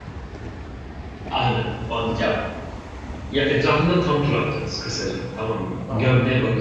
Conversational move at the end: listening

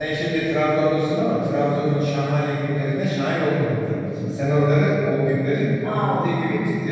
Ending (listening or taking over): listening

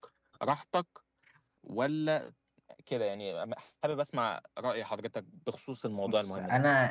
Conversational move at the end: taking over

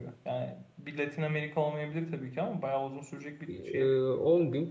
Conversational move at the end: taking over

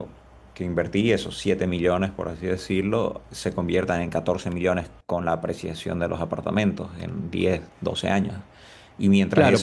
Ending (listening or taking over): taking over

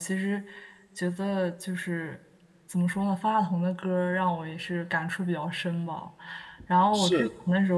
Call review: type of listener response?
listening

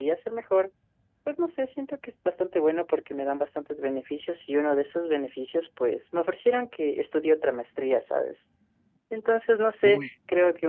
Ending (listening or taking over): listening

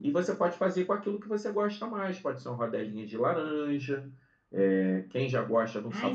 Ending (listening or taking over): taking over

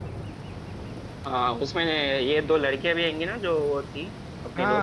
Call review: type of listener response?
taking over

